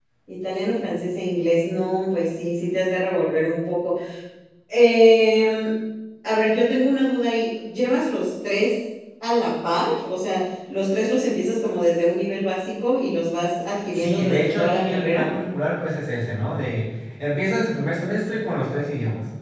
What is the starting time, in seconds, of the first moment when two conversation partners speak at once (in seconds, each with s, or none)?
13.9 s